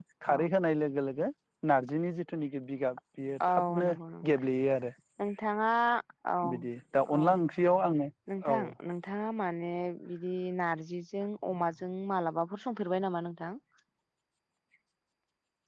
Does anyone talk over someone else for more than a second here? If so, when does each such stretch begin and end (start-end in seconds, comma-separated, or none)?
none